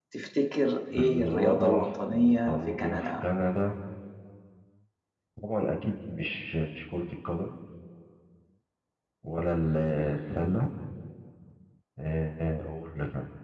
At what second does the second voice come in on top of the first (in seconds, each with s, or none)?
0.9 s